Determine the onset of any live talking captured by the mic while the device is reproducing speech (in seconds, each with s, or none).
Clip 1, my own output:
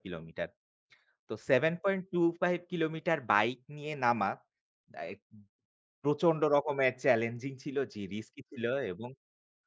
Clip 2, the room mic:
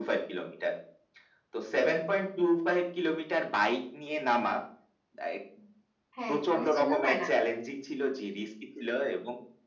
6.2 s